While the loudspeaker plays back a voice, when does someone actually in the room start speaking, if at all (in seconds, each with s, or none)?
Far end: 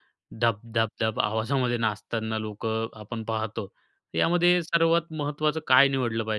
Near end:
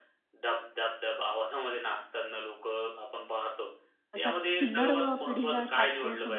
4.1 s